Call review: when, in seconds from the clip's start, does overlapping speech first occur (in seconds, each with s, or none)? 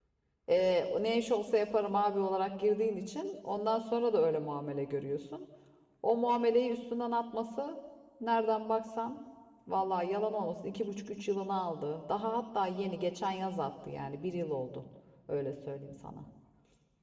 none